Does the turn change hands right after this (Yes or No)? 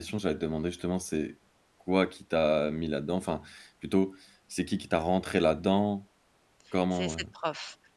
Yes